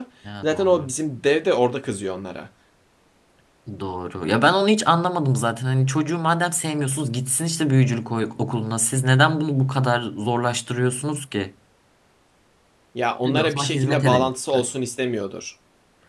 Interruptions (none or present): present